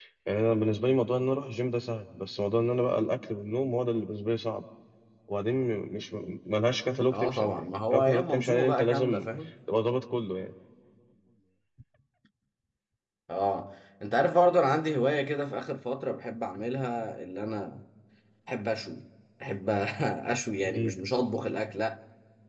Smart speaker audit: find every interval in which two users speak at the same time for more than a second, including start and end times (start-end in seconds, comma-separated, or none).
7.1-9.2